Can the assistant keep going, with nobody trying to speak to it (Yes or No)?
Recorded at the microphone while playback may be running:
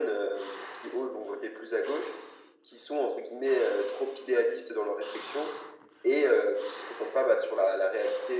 Yes